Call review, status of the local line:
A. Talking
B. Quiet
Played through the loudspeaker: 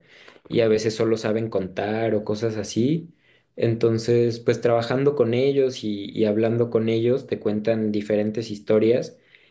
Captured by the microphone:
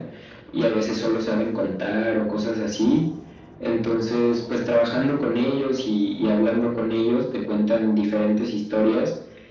B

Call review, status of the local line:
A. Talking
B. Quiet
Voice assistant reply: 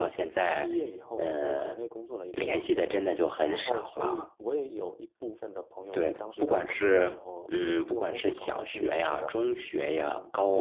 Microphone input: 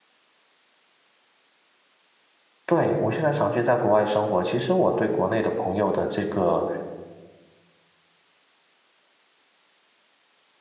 A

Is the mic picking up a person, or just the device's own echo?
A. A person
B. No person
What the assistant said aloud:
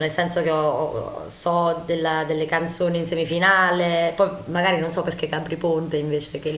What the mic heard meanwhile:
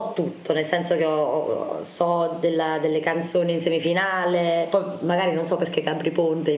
B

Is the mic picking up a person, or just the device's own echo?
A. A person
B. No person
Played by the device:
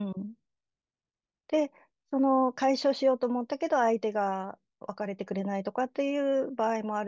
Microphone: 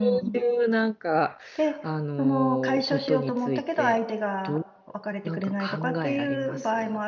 A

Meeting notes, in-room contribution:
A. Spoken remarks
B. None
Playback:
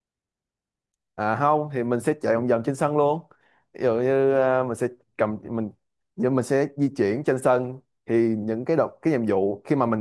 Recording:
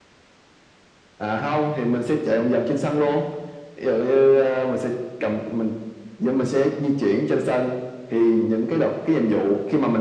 B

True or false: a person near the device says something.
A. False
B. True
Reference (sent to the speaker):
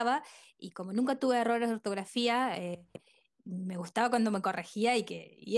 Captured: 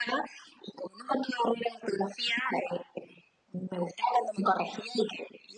A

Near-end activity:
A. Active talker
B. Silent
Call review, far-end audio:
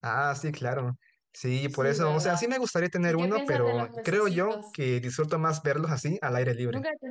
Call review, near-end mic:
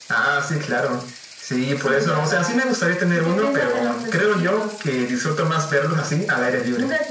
B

